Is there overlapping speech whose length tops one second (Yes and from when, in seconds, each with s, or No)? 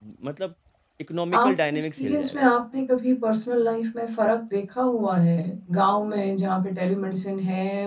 Yes, from 1.3 s